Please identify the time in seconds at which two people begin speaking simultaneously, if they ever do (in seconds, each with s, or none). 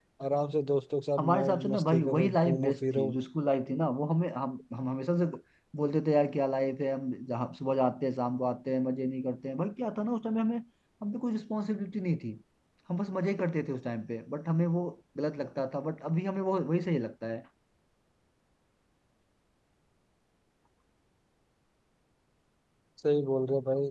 1.2 s